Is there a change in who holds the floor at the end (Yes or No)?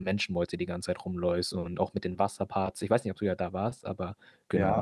Yes